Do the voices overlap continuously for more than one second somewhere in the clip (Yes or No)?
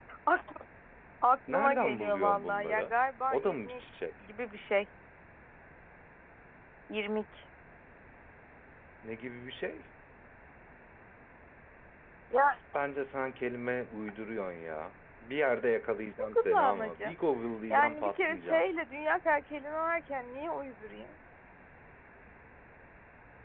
Yes